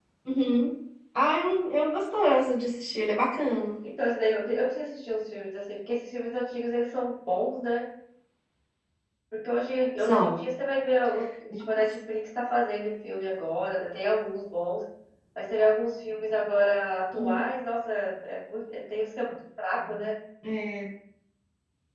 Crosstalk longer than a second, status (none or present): none